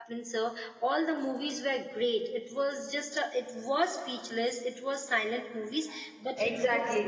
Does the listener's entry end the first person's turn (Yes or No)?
Yes